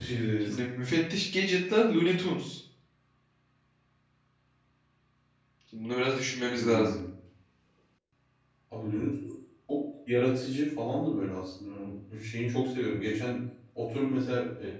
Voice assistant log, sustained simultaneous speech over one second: none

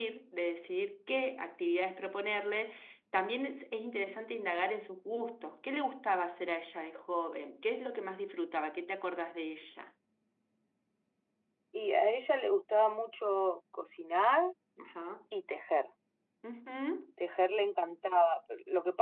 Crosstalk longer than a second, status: none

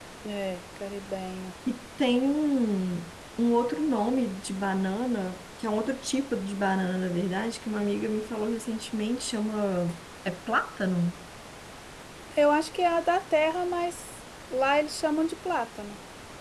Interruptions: none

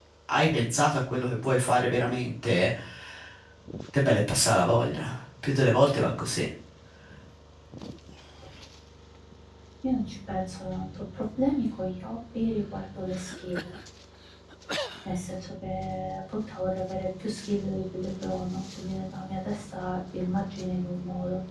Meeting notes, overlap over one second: none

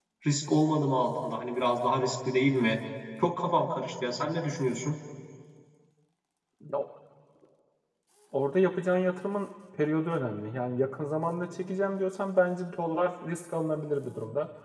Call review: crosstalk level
none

